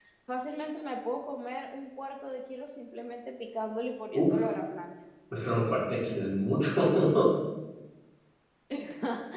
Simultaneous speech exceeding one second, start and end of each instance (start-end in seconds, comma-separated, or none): none